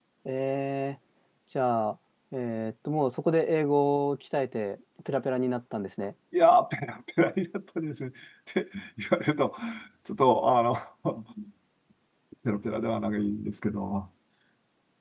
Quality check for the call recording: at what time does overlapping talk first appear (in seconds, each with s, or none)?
none